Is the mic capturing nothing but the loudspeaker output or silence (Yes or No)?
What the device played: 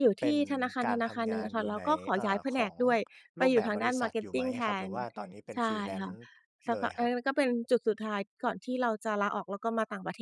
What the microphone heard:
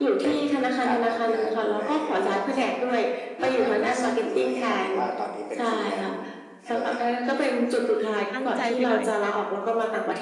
No